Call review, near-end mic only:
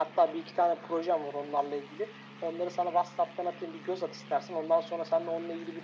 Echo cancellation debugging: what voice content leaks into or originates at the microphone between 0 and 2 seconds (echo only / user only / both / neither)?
echo only